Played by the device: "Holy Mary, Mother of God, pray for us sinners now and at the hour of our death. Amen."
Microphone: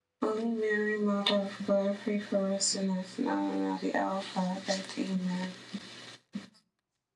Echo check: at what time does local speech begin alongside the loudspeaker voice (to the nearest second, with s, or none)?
none